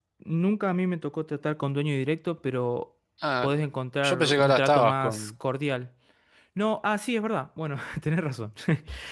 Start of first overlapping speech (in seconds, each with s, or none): 4.0 s